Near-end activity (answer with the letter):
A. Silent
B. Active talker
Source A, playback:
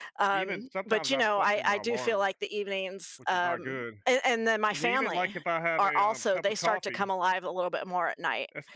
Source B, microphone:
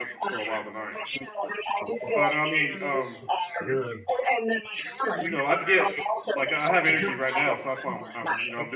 B